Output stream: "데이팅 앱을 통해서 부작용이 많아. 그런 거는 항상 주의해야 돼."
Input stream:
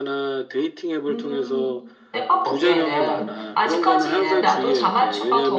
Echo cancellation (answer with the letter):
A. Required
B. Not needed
A